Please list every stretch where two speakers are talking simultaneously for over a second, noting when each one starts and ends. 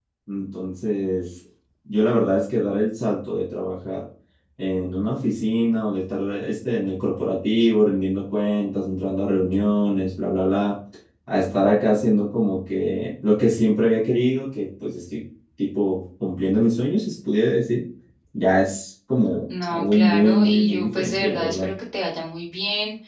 19.7-21.7

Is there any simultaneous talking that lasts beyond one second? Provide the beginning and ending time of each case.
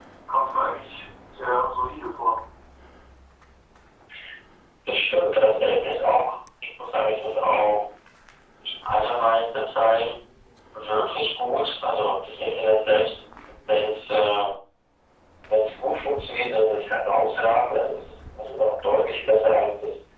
none

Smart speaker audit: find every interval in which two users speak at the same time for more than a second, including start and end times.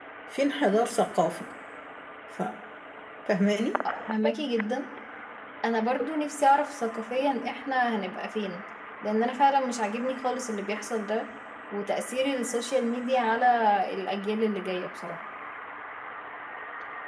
none

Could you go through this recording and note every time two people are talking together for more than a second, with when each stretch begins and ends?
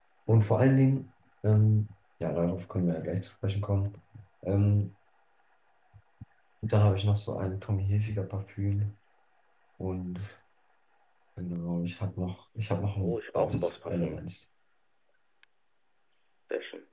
13.0-14.2

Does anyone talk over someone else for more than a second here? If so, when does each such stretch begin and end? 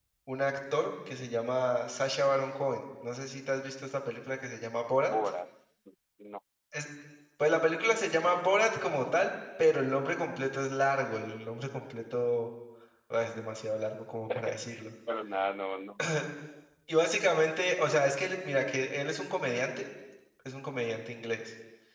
none

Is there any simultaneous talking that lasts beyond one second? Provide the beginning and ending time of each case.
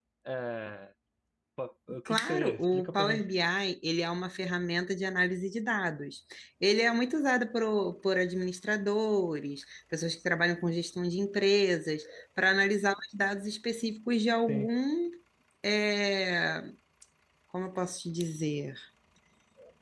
2.0-3.3

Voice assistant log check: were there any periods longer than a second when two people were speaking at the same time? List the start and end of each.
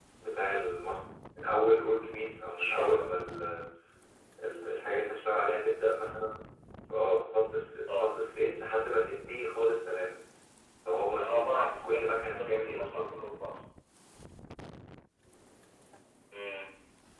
11.2-13.0

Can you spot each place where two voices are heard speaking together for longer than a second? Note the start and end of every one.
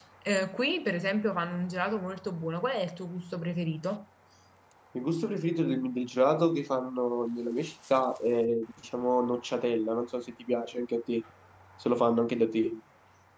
none

